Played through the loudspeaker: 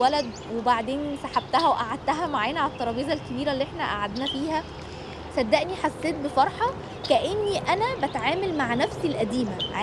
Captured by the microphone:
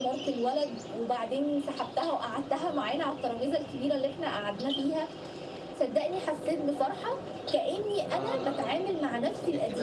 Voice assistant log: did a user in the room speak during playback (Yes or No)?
Yes